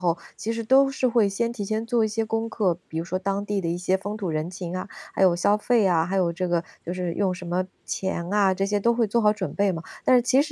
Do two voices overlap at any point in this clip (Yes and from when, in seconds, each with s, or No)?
No